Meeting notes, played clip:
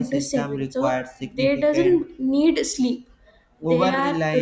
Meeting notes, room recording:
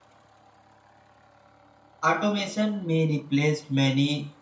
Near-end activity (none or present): present